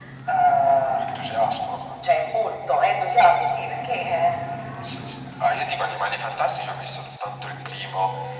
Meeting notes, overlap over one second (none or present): none